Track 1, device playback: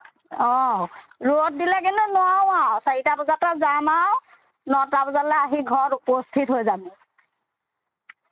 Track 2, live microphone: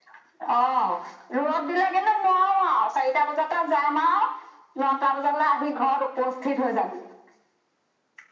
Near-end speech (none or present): none